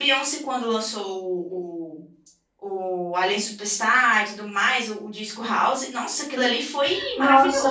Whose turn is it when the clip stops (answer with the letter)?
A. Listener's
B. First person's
A